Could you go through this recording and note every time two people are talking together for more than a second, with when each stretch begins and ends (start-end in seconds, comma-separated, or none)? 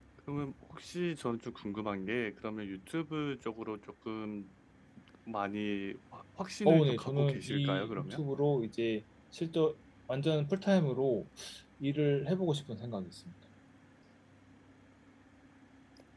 6.6-8.2